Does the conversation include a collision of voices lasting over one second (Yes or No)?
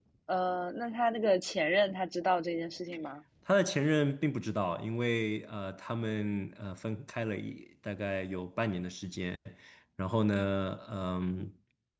No